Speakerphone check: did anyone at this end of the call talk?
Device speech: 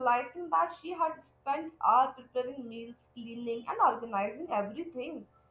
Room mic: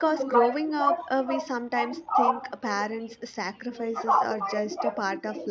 Yes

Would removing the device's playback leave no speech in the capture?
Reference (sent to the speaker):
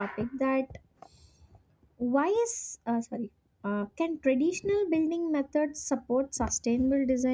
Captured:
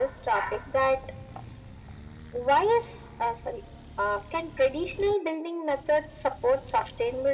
Yes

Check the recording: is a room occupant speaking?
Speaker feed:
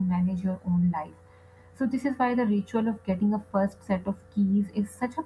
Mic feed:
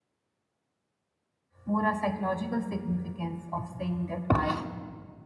Yes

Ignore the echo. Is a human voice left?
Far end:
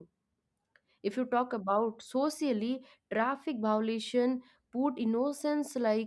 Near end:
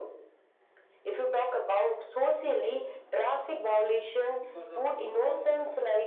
Yes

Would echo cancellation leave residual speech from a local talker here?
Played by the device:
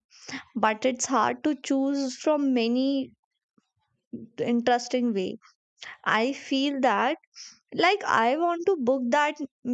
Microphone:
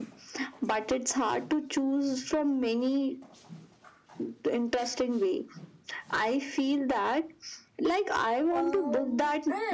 Yes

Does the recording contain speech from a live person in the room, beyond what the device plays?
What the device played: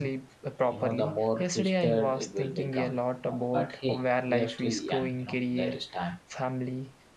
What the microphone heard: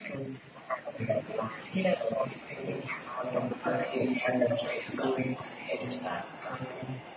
No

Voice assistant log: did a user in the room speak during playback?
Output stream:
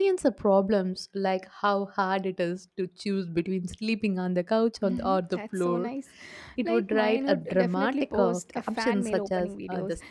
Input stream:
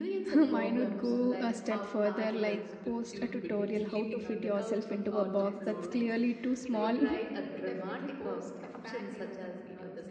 Yes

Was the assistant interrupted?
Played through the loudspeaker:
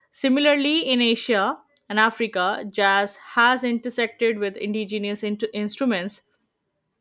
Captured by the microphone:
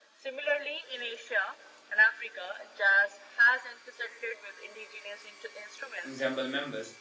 Yes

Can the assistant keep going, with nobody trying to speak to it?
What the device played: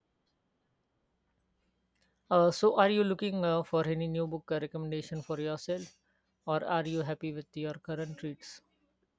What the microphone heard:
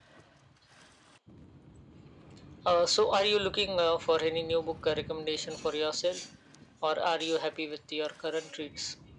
Yes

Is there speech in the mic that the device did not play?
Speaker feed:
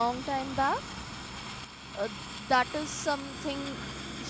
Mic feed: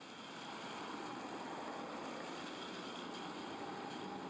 No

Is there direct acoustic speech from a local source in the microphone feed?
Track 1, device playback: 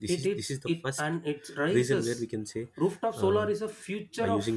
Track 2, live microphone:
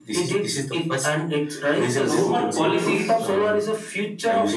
Yes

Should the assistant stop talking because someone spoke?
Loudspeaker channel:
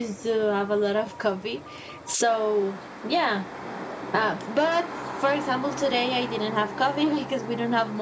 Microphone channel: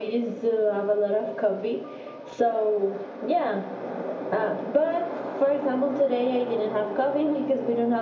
No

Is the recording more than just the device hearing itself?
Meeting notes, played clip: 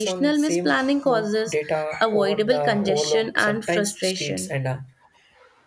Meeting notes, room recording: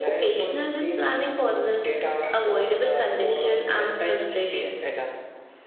No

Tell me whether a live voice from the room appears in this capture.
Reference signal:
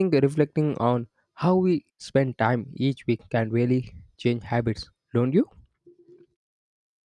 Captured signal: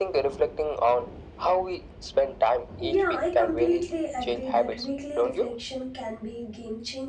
Yes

